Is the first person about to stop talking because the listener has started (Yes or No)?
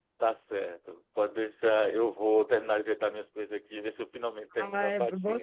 Yes